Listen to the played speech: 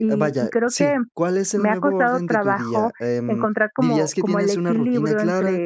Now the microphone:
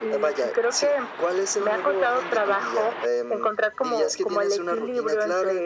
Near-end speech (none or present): none